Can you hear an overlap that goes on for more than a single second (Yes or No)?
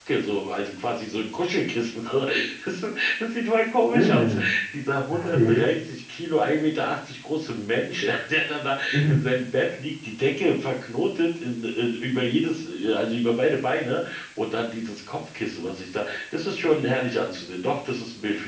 No